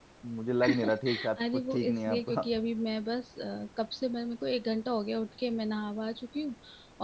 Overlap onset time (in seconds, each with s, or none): 0.7 s